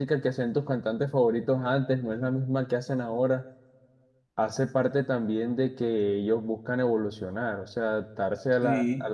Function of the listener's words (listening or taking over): listening